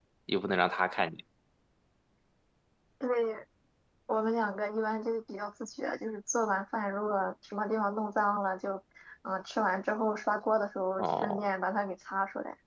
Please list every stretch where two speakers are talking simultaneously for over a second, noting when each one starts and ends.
none

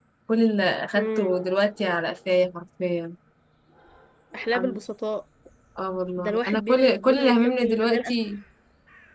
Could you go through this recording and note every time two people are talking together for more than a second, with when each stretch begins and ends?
6.2-8.0

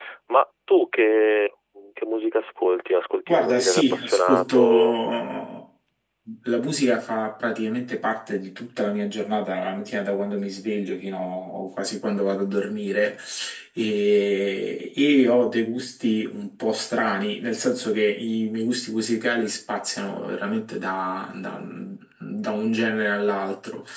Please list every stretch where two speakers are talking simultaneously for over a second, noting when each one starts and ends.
3.3-5.0

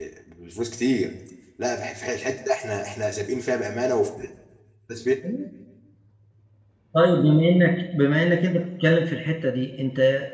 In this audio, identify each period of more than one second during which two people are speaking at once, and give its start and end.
none

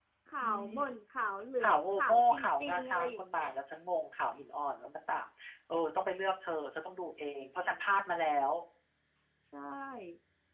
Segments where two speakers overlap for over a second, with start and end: 1.6-3.5

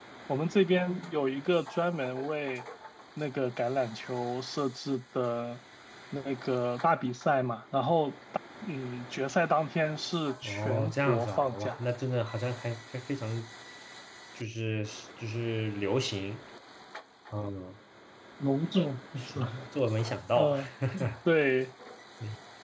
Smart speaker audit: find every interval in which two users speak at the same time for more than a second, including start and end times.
10.4-11.8

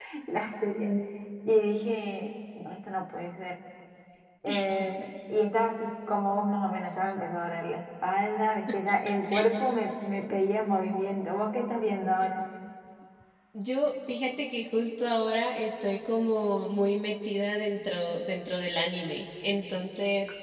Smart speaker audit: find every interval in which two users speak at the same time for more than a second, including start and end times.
none

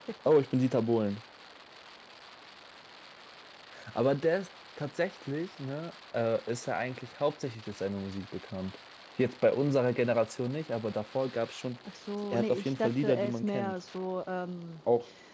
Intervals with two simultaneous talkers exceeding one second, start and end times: 12.3-13.8

